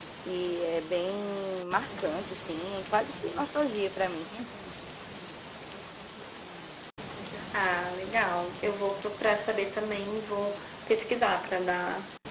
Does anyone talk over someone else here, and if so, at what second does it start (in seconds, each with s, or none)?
none